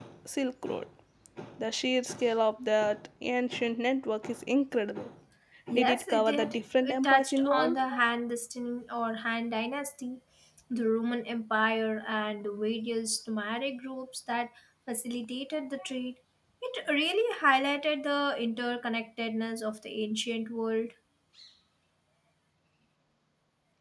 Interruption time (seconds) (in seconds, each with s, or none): 5.7 s